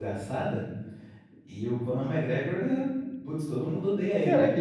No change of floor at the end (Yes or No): No